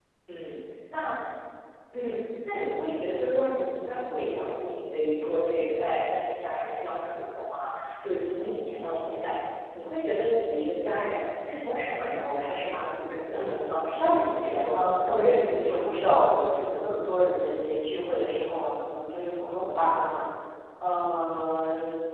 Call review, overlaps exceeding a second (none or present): present